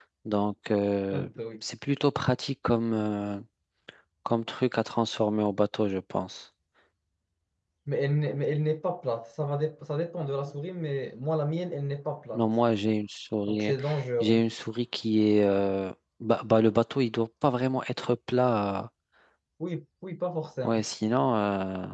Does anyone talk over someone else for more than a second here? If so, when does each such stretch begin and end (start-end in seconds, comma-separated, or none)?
none